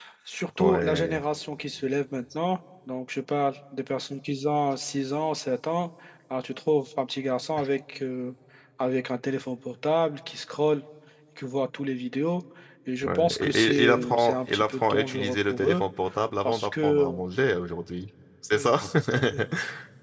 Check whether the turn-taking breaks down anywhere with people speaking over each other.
Yes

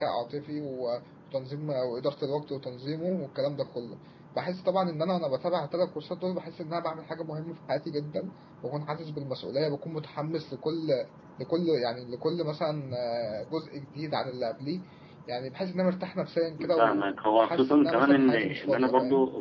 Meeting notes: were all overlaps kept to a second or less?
No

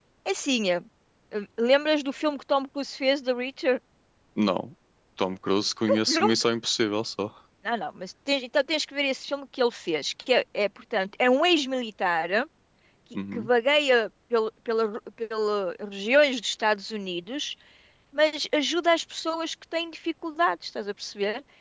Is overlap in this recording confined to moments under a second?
Yes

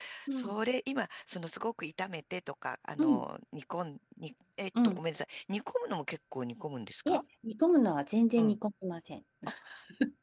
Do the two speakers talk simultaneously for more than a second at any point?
No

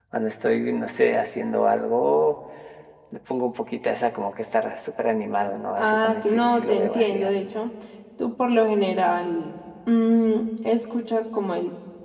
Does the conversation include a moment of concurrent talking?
Yes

